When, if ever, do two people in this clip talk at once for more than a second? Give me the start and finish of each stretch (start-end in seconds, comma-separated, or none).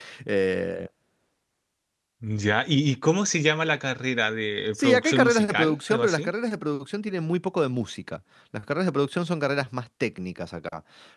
4.7-6.3